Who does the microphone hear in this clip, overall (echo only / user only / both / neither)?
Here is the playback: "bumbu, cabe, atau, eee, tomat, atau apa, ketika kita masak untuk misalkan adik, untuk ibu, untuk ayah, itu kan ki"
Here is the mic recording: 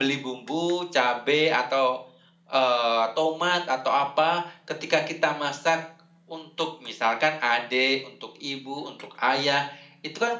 echo only